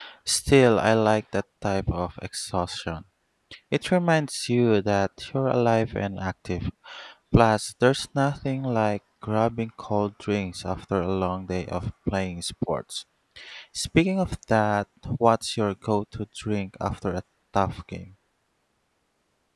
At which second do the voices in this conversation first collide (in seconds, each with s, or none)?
none